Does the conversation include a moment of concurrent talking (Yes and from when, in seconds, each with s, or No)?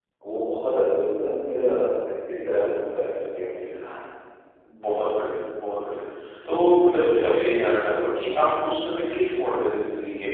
No